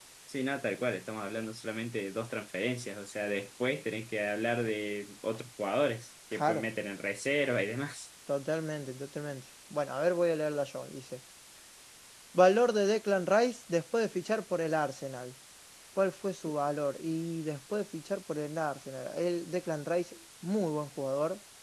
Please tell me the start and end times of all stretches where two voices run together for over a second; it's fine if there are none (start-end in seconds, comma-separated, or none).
none